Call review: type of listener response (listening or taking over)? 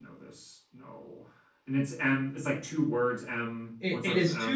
taking over